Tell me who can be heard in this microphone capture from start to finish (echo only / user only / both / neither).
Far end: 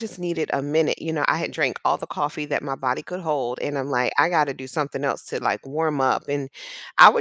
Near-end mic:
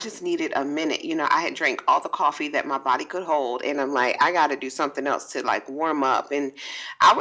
echo only